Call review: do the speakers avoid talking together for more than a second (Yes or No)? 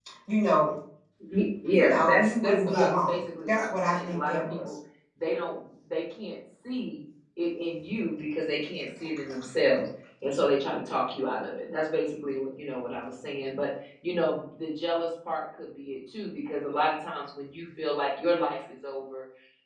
No